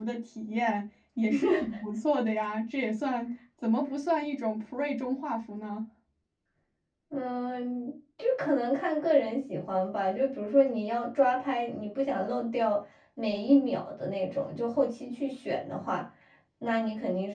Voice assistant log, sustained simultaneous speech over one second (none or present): none